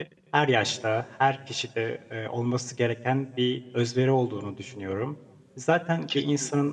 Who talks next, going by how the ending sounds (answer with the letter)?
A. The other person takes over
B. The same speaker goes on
B